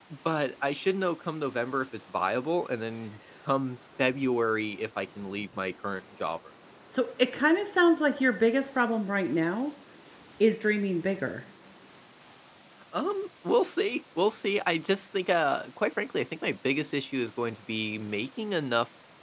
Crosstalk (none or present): none